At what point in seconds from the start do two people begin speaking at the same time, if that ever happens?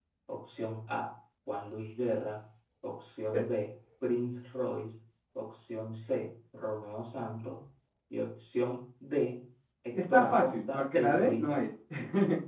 9.9 s

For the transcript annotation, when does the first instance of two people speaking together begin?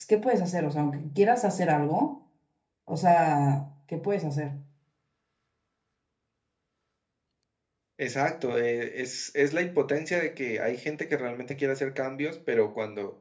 none

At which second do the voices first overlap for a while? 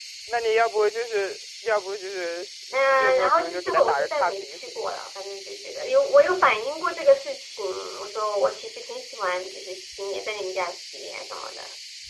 2.9 s

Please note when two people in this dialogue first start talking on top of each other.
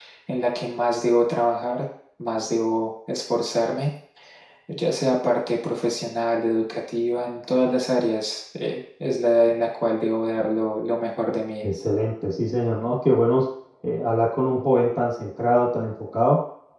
none

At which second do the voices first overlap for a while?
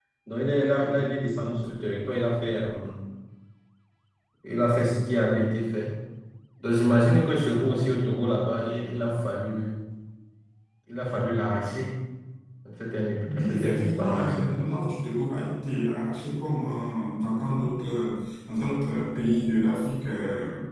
13.3 s

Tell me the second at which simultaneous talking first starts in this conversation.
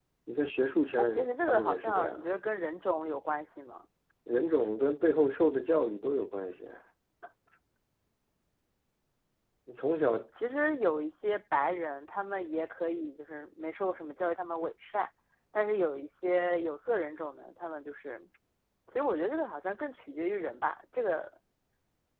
1.0 s

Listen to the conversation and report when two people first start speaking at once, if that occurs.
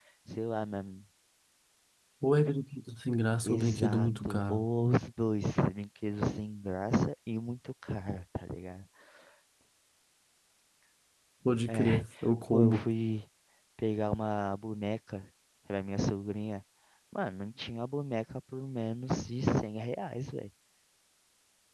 3.4 s

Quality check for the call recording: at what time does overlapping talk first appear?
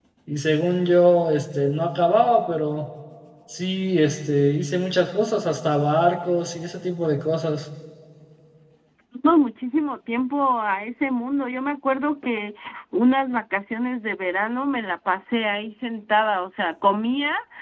none

